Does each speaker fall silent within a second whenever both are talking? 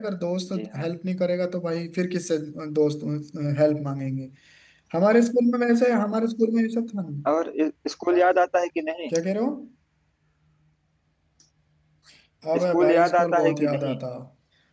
No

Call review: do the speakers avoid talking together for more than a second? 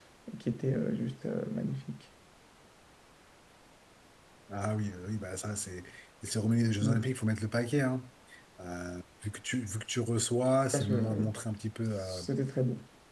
Yes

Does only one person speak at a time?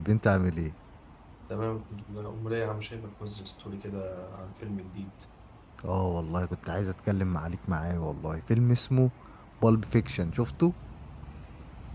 Yes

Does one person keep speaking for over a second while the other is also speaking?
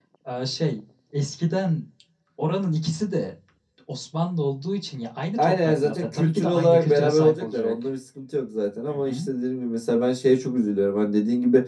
Yes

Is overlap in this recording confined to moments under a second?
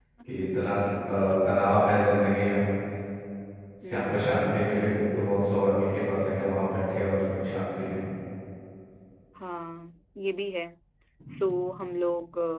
Yes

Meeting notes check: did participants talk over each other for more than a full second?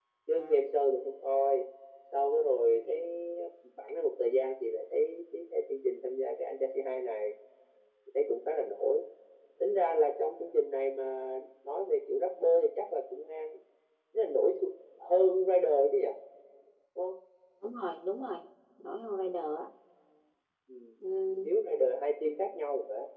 No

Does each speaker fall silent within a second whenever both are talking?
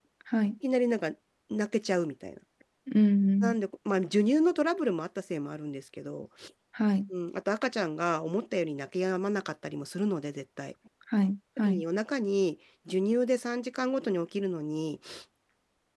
Yes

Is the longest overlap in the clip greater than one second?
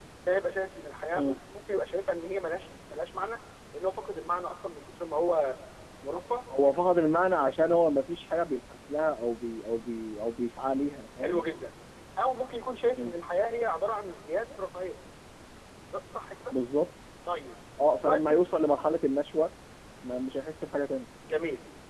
No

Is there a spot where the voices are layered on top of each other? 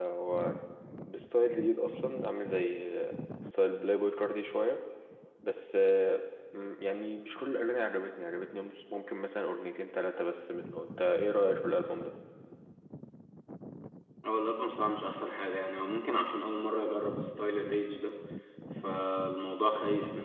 No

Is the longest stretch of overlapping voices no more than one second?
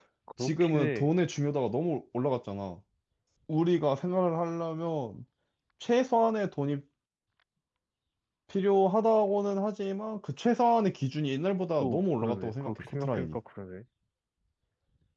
No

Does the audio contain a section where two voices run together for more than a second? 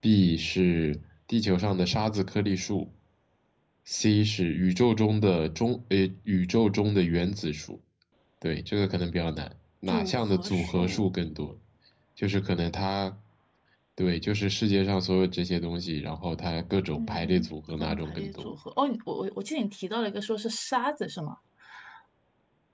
Yes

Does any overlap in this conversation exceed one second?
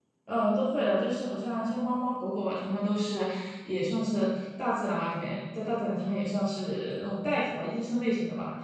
No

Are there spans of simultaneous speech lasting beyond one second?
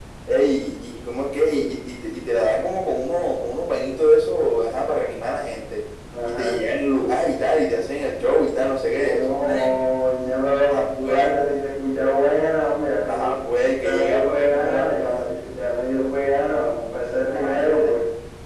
Yes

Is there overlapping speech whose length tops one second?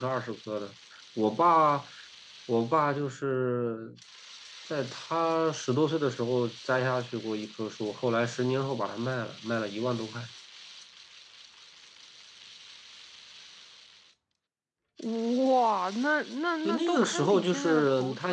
Yes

